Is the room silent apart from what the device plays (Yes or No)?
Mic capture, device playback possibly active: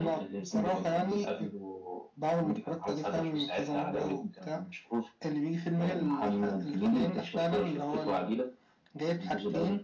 Yes